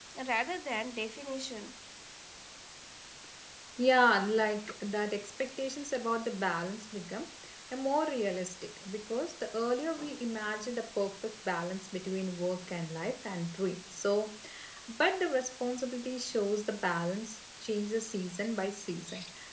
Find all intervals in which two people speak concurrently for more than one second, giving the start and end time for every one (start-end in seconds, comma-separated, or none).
none